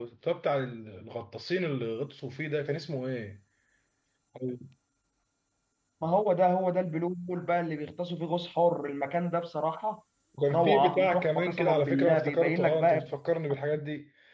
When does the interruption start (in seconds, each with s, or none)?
10.5 s